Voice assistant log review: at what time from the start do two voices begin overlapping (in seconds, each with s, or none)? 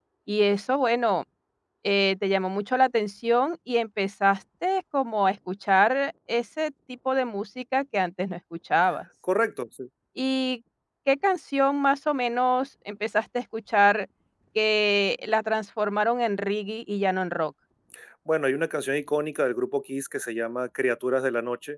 none